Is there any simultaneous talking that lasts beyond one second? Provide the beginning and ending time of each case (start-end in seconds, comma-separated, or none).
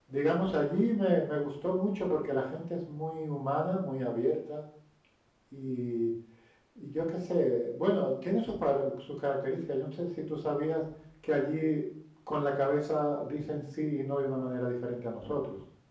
none